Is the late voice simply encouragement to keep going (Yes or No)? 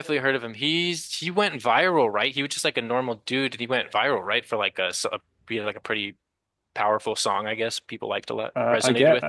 No